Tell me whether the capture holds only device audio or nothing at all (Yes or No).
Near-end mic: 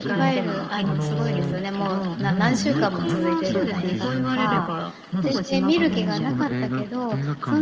No